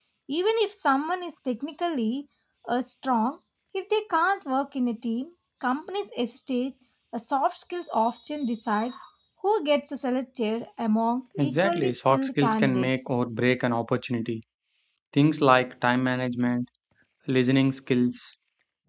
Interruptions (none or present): present